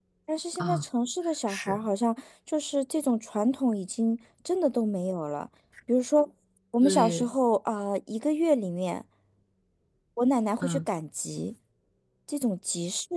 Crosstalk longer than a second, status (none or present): none